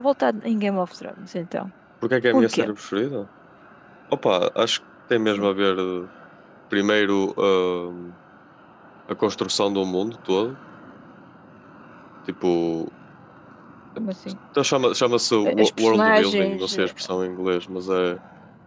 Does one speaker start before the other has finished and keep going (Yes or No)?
Yes